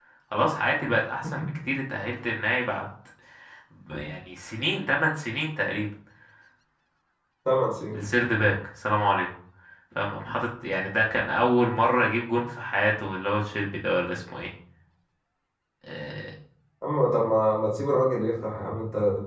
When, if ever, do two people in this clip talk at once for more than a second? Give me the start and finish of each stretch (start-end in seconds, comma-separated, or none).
none